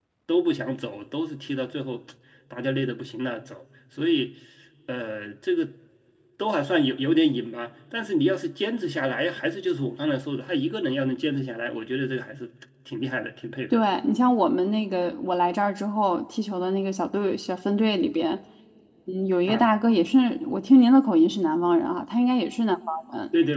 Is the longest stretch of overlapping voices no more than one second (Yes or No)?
Yes